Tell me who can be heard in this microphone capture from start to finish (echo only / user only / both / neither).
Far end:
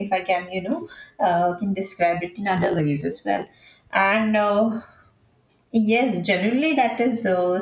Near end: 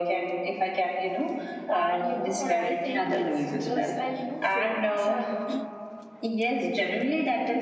both